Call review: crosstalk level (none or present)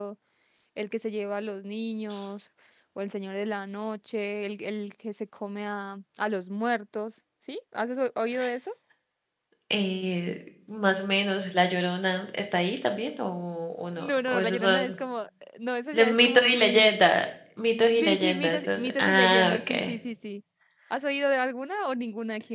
present